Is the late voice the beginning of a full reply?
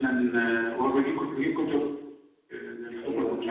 No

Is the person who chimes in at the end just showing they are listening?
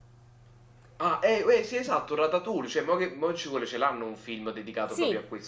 No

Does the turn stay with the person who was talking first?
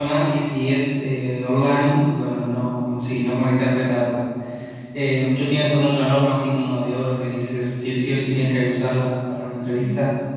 No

